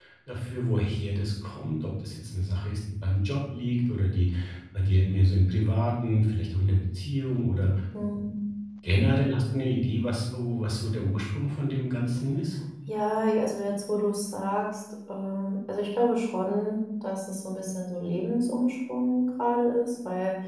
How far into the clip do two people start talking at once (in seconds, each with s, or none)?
none